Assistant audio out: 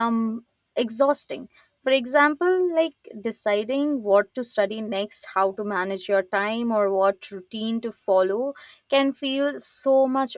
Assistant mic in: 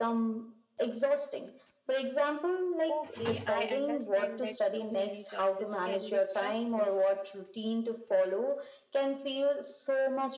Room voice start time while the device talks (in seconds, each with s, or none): 2.9 s